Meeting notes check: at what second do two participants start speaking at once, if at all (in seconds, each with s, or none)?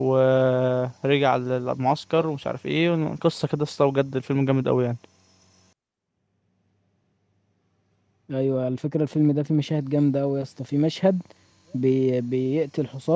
none